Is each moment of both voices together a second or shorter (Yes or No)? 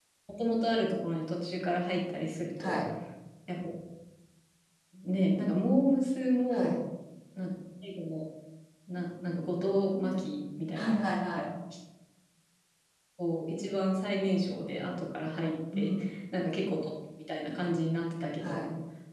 Yes